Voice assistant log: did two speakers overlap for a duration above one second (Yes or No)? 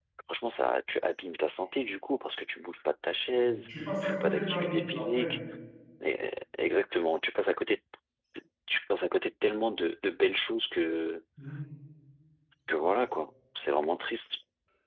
Yes